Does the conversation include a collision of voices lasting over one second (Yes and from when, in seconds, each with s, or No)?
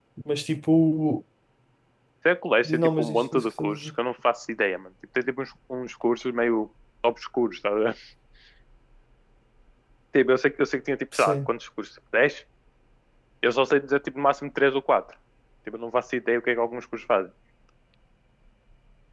Yes, from 2.6 s